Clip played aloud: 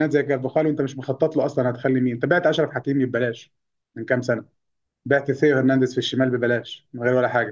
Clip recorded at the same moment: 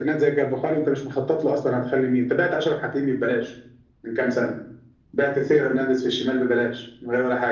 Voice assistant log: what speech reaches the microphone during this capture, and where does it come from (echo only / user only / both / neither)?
echo only